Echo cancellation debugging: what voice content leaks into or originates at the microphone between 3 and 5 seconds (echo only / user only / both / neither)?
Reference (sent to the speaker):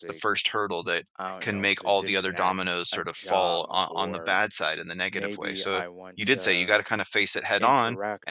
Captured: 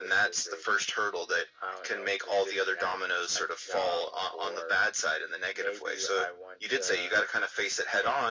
echo only